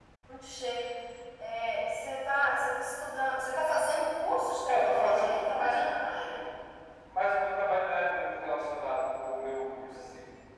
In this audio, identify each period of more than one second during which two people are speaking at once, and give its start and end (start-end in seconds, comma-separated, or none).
4.7-5.9